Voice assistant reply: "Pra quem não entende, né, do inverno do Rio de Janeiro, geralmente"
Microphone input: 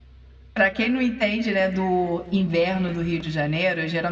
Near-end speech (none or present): none